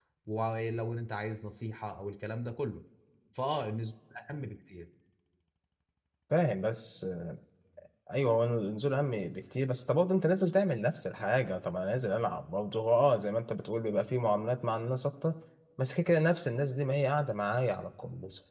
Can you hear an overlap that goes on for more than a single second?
No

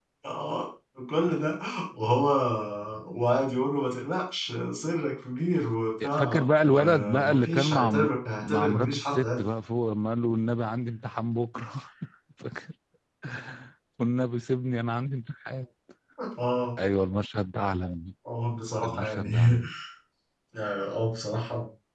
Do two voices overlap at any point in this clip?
Yes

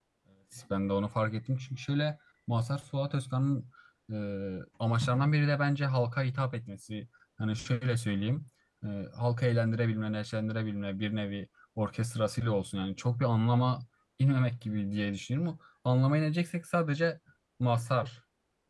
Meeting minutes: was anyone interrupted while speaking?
No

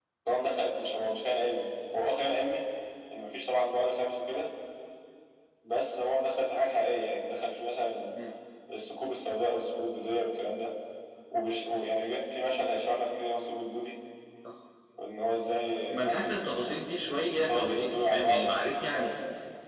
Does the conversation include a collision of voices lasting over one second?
Yes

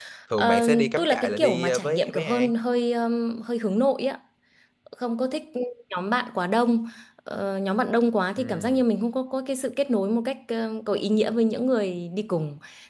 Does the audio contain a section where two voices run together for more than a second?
Yes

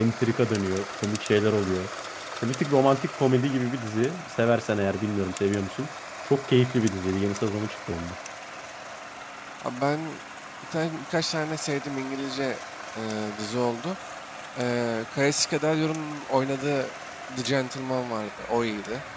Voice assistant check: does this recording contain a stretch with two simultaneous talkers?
No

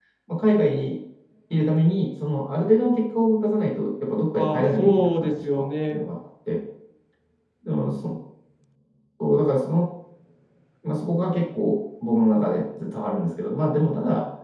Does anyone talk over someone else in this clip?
Yes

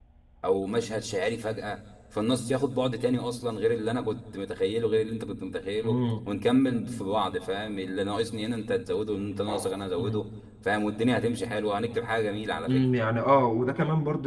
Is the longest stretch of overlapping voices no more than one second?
Yes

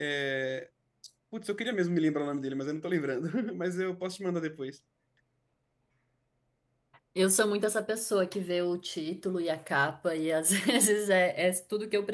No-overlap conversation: Yes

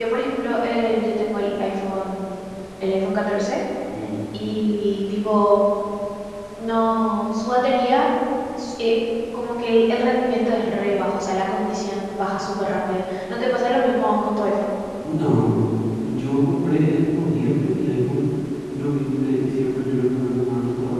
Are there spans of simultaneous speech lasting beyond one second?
No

